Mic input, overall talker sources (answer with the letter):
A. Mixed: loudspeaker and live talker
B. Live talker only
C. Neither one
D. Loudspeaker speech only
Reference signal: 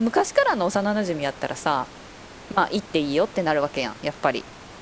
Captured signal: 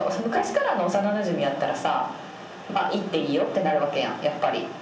D